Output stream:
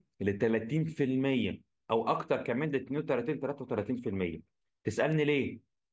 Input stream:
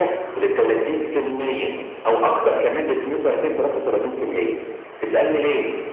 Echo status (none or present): present